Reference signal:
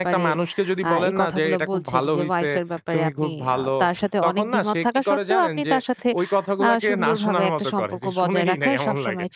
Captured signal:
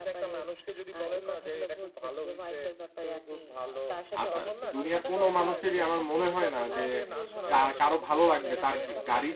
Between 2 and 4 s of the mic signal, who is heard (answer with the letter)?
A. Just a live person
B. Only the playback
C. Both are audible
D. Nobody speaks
B